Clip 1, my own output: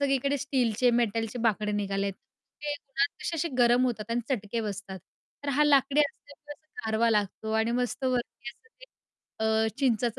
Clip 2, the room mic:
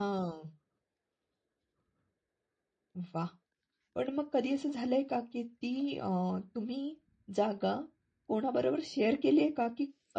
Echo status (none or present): none